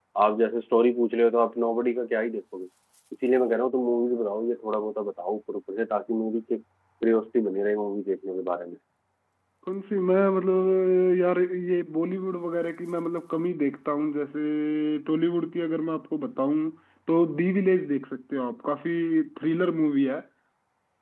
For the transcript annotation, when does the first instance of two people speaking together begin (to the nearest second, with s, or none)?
none